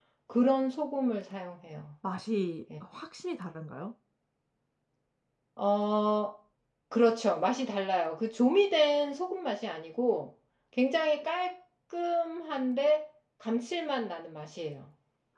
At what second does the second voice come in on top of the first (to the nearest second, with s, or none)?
none